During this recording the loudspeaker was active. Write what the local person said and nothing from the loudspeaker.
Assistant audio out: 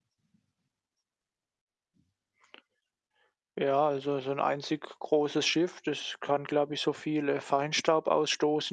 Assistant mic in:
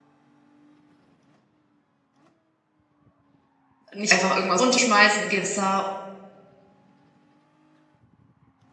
nicht einfach irgendwas runterschmeißen im Gewässer,

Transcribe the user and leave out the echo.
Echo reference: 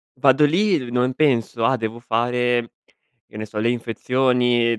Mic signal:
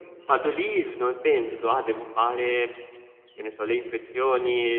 Mh-mh.

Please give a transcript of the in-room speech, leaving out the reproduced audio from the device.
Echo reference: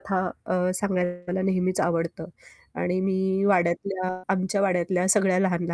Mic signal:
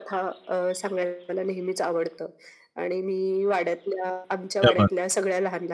क्या बात है.

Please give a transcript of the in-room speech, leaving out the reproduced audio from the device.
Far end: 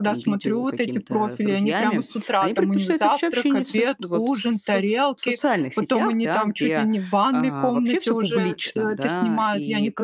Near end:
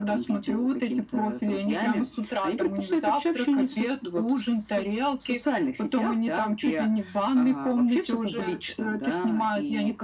none

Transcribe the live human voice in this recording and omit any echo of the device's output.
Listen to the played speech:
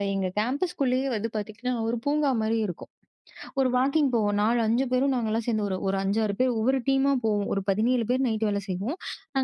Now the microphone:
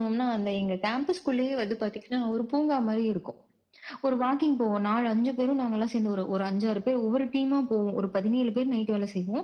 none

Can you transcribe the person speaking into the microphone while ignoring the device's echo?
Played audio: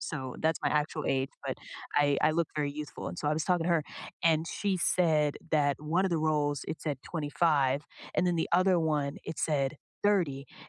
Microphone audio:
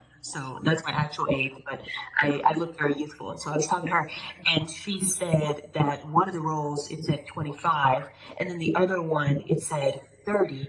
none

